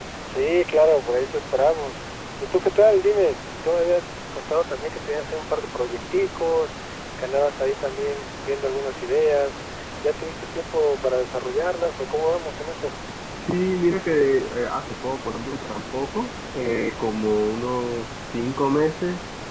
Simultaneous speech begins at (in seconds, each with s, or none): none